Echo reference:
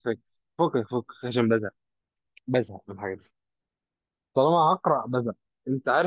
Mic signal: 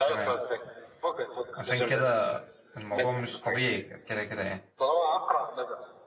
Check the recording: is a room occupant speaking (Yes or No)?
Yes